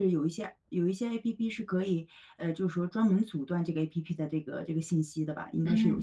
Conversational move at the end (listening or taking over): taking over